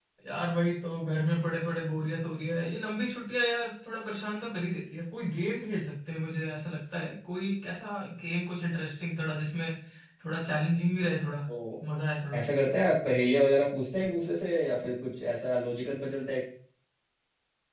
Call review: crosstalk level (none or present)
none